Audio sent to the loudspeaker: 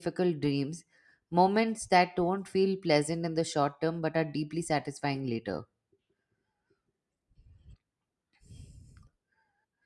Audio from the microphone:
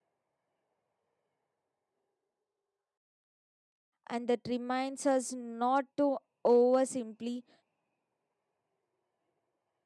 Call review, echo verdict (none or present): none